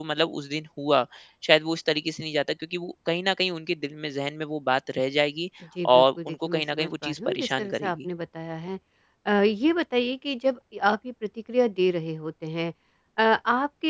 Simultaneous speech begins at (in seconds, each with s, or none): 6.0 s